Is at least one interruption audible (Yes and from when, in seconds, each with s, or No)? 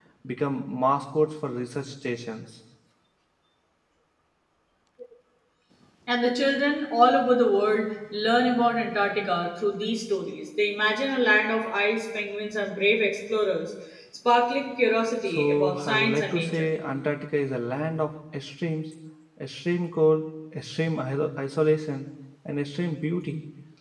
Yes, from 15.2 s